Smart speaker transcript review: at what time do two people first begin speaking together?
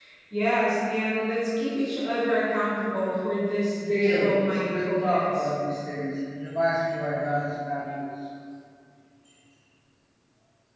3.8 s

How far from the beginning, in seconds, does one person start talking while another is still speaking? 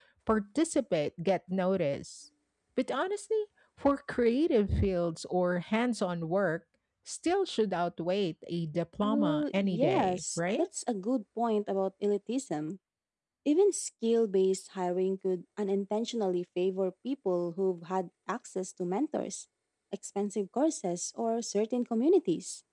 9.0 s

